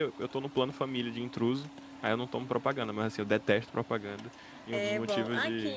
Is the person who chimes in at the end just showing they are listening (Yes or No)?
No